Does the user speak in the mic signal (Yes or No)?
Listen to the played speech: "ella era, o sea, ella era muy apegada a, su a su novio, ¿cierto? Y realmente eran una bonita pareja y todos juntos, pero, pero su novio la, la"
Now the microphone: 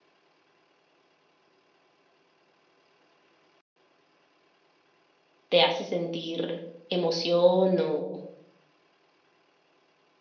Yes